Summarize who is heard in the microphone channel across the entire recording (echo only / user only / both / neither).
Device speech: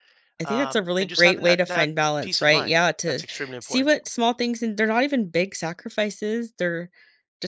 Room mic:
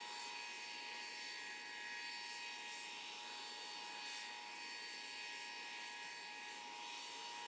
neither